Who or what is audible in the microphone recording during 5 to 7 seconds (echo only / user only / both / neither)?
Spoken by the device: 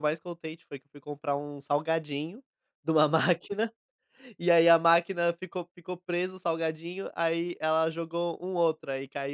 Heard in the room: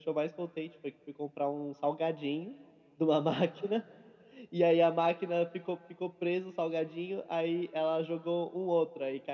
echo only